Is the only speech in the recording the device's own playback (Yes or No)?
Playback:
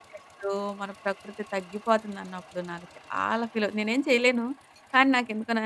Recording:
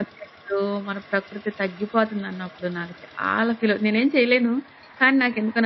Yes